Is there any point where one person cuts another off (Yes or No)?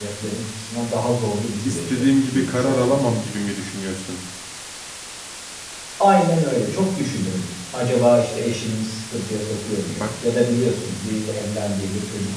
Yes